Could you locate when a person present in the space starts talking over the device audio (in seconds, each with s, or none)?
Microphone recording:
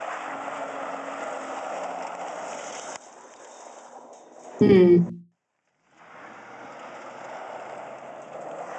4.6 s